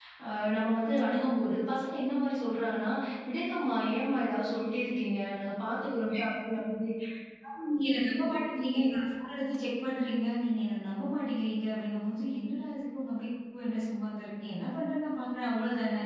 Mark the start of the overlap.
none

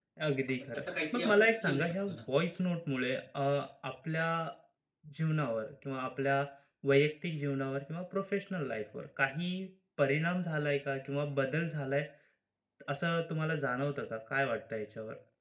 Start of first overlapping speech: 0.7 s

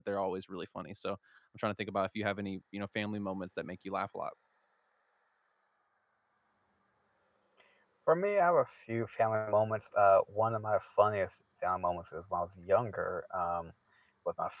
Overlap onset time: none

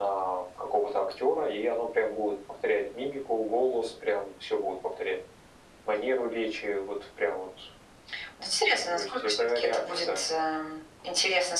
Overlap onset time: 8.9 s

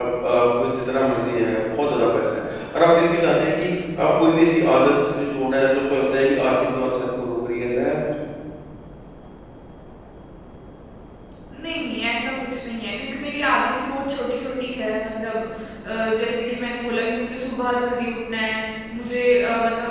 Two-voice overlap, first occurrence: none

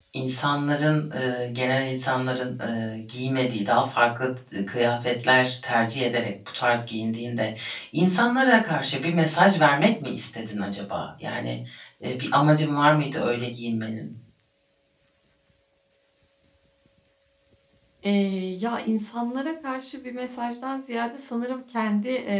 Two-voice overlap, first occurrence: none

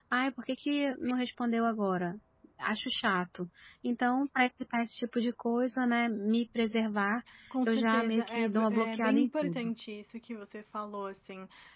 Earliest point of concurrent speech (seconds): 7.7 s

